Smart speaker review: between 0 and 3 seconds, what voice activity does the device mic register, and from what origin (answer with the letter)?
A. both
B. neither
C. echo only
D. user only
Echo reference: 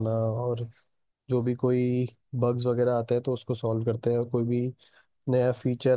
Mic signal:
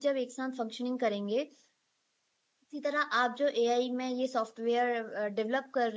D